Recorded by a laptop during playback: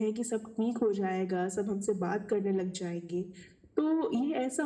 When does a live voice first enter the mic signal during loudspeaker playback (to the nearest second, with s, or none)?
none